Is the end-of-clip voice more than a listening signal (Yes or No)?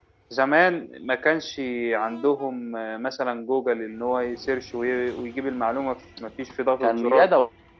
Yes